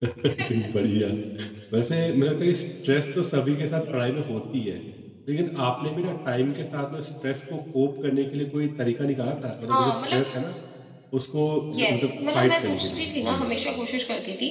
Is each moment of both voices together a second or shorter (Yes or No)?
No